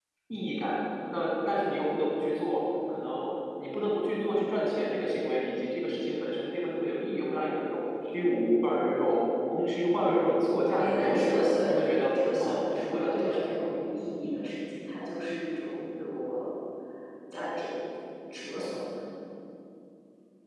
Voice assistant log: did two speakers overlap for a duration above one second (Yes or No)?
Yes